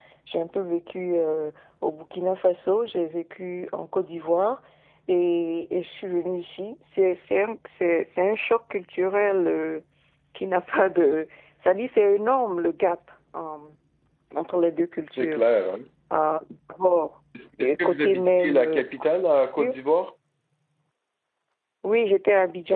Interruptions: present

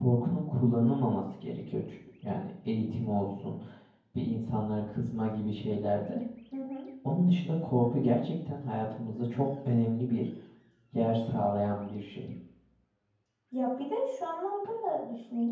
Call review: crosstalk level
none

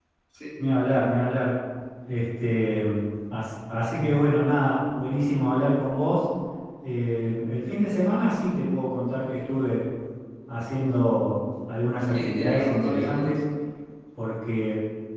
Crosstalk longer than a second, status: present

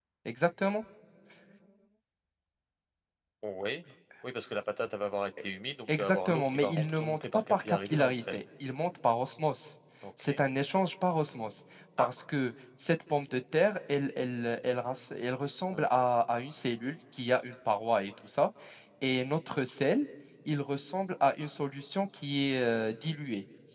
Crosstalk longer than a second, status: present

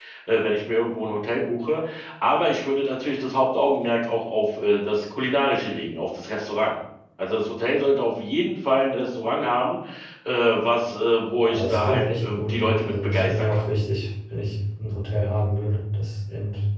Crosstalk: present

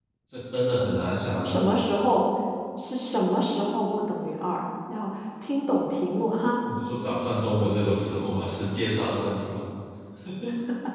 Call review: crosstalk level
none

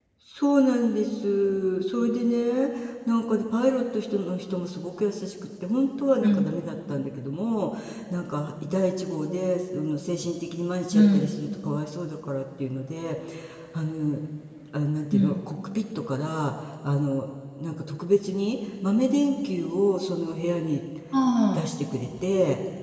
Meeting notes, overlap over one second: none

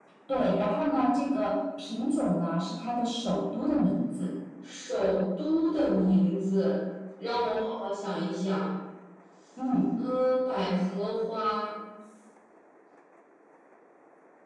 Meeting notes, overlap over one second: none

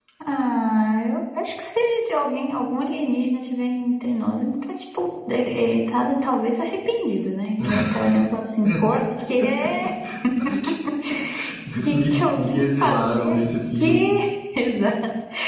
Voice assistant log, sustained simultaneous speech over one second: present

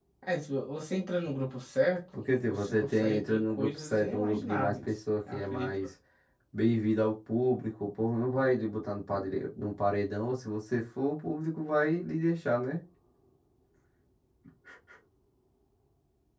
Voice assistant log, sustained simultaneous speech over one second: present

